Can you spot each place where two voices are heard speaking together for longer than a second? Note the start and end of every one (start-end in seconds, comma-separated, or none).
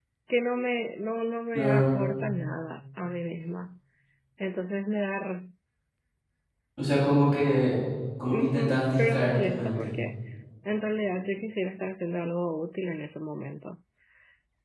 8.3-9.9